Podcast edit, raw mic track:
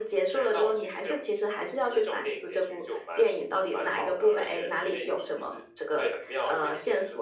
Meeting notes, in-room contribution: none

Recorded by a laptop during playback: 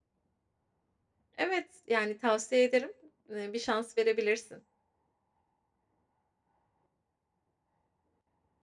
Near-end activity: present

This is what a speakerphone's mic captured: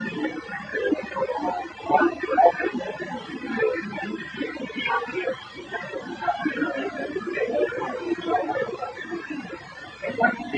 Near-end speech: none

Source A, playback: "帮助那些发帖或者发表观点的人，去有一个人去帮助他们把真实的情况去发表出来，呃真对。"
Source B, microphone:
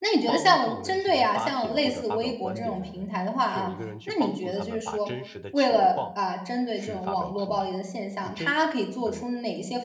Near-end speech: present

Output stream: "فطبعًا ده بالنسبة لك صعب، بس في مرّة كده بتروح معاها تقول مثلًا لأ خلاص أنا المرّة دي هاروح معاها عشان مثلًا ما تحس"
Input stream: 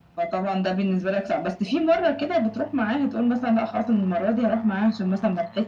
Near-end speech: none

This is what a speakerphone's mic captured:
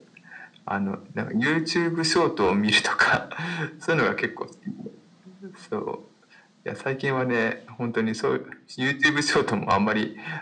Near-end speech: none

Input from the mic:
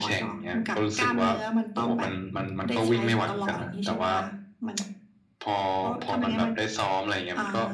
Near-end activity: none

